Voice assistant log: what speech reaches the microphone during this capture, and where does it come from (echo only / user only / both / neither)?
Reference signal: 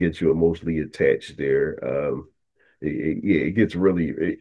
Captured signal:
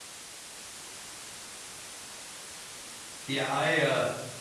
user only